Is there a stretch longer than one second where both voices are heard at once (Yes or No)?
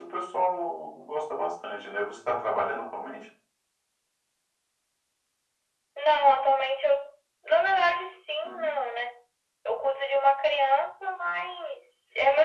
No